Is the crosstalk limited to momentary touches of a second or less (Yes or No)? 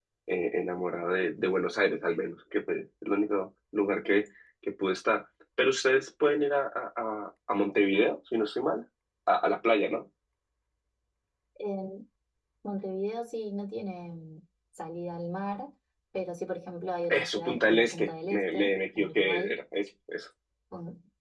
No